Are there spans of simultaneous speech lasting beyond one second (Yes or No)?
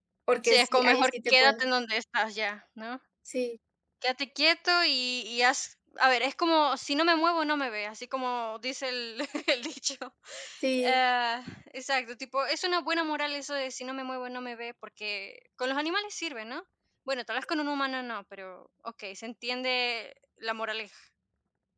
Yes